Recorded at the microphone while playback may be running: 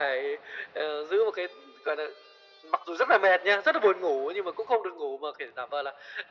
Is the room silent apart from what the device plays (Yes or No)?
Yes